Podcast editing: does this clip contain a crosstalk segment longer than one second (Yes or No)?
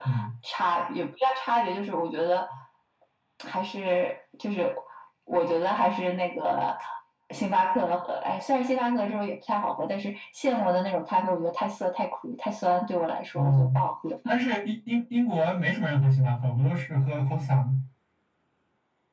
No